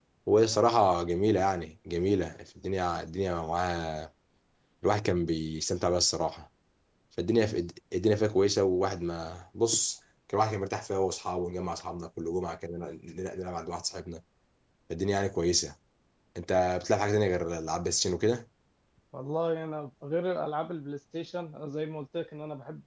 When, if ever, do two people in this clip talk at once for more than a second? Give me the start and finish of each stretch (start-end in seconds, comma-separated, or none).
none